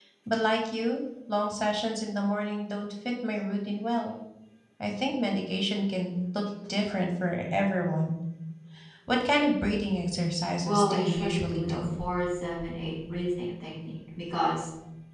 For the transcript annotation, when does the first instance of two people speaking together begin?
11 s

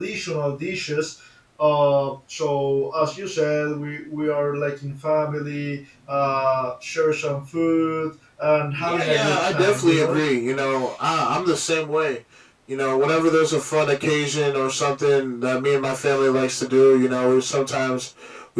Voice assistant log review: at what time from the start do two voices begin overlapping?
9 s

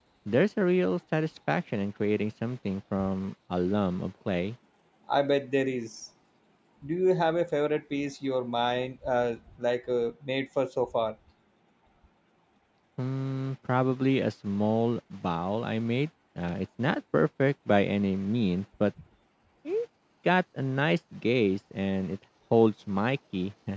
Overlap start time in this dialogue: none

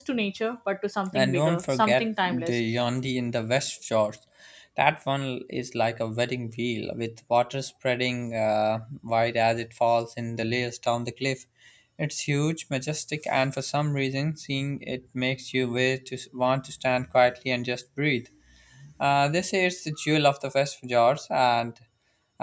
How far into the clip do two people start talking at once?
1 s

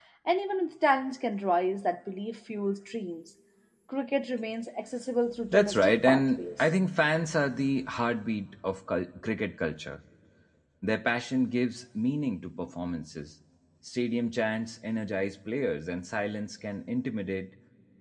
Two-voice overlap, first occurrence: 5 s

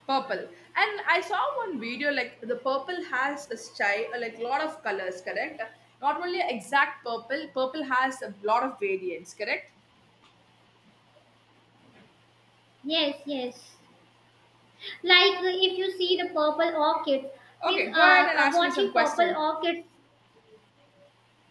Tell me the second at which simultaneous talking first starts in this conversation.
18 s

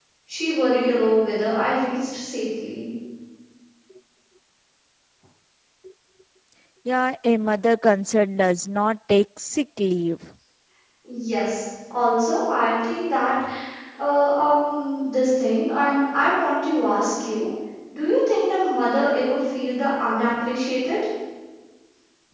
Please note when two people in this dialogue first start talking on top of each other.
none

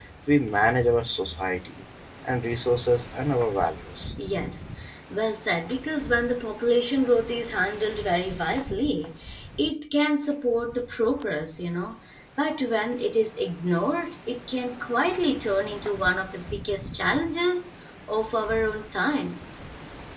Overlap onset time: none

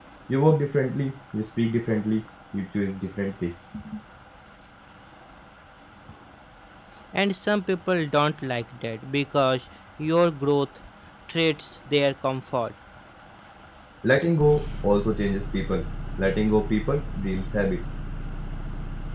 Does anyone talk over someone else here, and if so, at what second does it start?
none

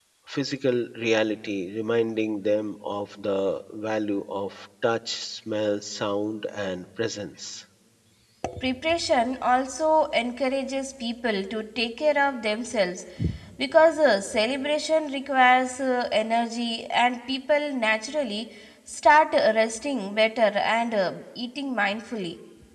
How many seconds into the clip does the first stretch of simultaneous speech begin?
none

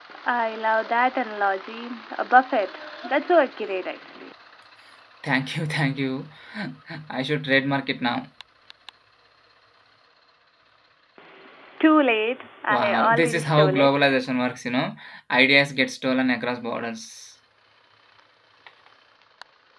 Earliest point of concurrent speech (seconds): 13 s

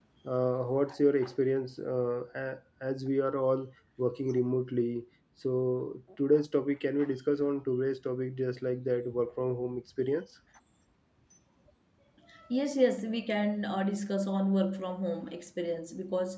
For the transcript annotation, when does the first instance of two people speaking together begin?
none

